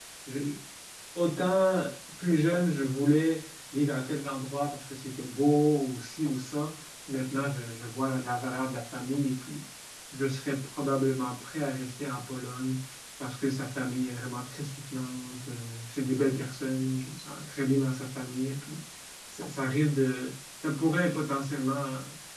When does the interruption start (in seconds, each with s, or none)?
none